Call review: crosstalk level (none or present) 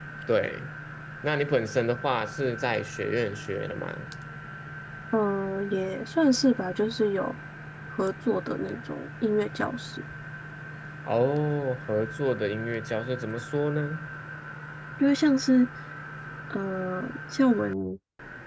none